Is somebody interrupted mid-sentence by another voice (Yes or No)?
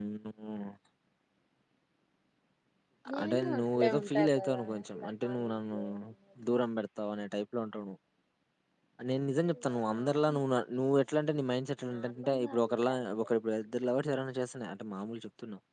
Yes